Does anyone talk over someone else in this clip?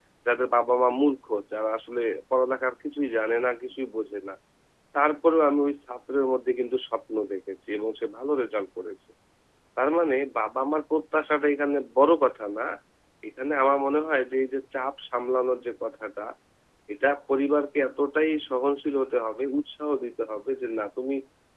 No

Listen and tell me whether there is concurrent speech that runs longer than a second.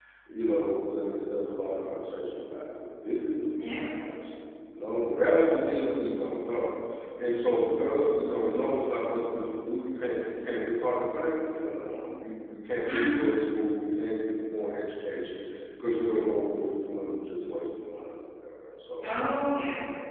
No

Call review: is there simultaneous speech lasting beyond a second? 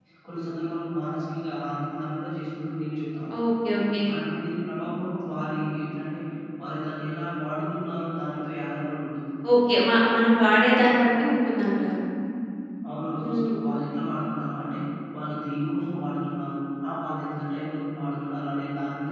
No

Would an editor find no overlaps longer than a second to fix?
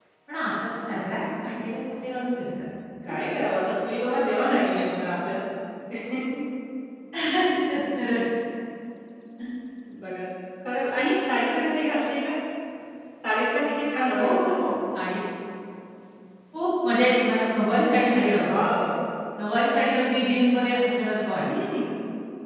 Yes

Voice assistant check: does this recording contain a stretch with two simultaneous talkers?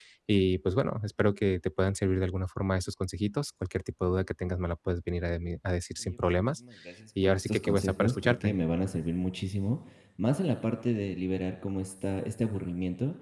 Yes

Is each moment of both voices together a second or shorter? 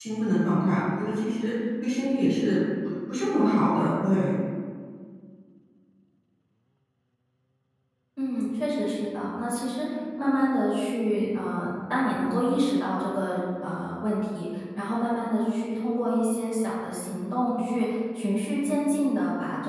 Yes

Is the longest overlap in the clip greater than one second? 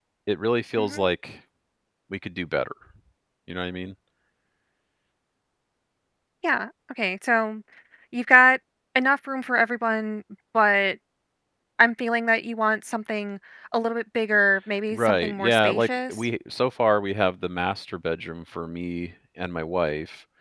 Yes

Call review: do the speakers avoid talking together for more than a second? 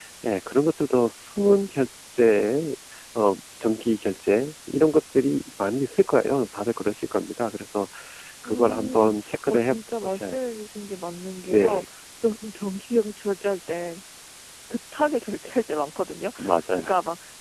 No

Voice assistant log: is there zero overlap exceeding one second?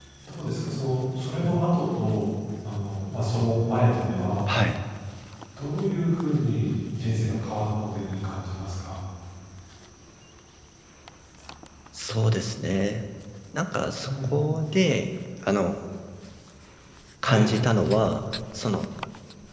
Yes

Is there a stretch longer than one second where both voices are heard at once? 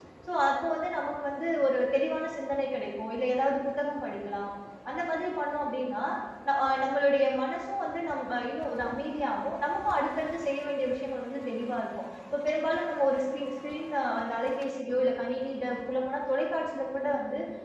No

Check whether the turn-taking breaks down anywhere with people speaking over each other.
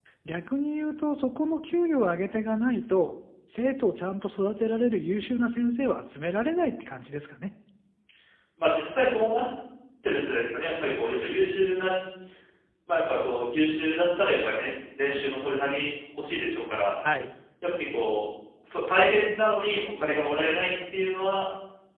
No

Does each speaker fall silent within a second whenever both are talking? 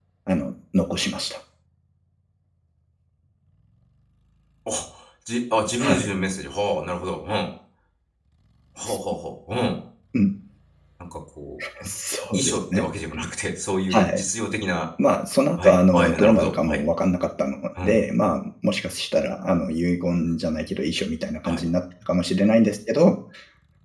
No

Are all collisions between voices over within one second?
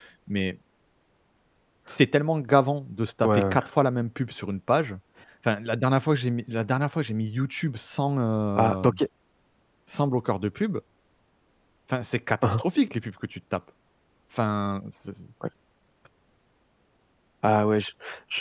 Yes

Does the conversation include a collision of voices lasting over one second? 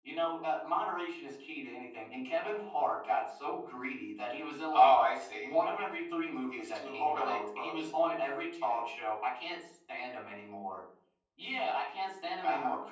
Yes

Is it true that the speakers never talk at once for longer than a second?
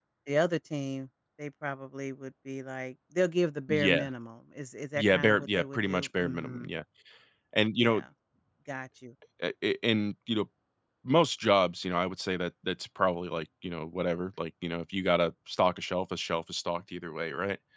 No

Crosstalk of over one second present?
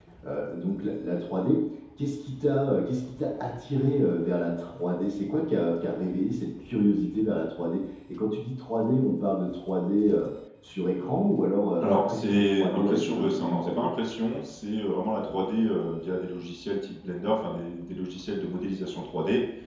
Yes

